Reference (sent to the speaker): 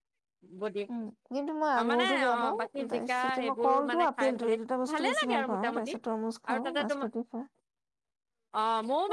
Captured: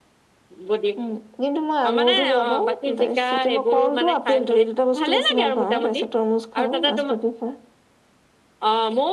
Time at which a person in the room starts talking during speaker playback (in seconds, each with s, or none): none